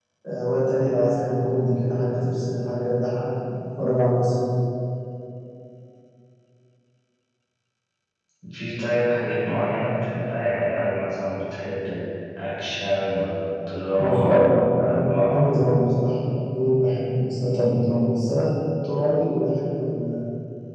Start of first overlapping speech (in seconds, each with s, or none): 14.0 s